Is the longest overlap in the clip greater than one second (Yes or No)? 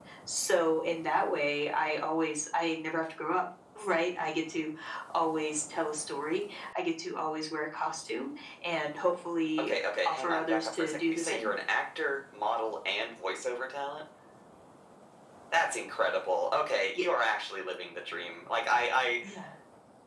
Yes